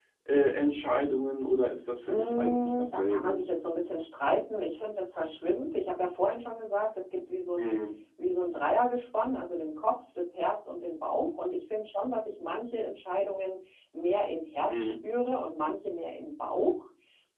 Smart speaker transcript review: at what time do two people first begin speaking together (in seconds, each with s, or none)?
2.1 s